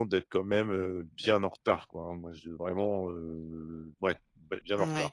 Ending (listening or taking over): taking over